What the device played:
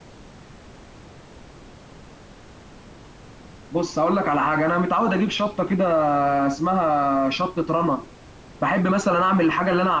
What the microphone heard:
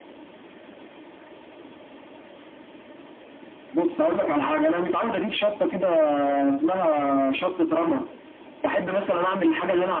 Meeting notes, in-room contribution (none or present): none